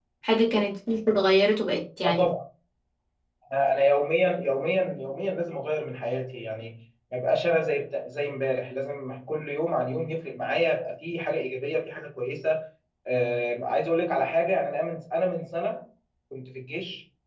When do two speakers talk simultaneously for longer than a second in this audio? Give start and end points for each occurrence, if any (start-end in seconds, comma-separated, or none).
none